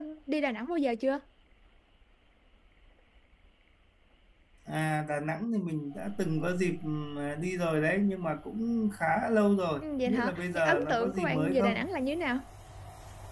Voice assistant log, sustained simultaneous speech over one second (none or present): present